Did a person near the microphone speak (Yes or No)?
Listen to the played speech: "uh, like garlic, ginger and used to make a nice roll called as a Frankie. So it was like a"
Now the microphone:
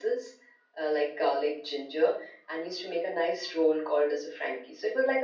No